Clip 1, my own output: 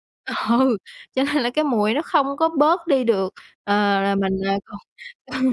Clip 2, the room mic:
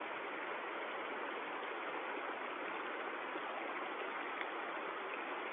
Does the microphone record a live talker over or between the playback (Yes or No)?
No